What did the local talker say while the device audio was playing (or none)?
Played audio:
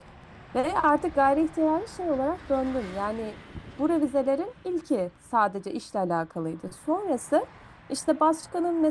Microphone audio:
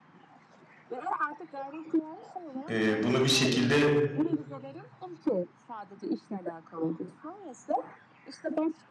E, bunu bir şekilde